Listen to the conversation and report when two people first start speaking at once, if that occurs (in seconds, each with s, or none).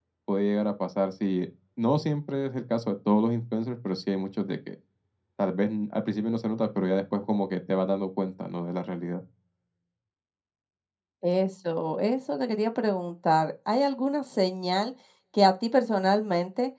none